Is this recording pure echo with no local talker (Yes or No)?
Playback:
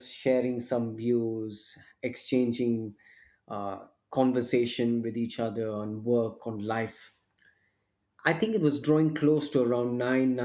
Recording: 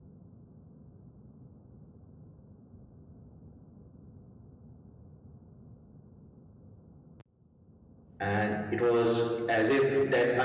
No